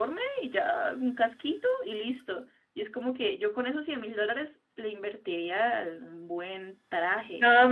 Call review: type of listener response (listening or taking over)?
taking over